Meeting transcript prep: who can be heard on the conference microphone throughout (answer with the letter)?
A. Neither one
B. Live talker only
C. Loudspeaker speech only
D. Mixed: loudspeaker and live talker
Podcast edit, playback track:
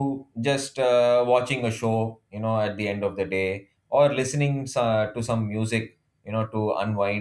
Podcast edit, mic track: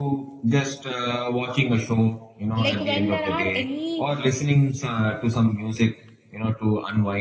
D